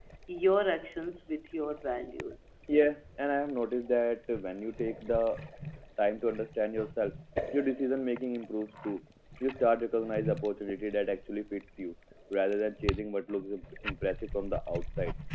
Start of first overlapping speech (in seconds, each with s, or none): none